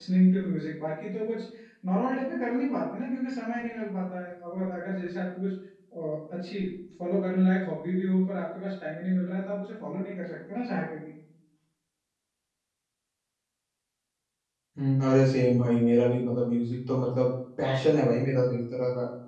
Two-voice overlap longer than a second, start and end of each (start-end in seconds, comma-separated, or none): none